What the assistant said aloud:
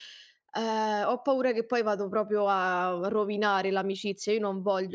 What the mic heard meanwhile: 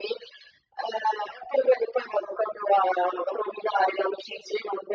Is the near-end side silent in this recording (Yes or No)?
Yes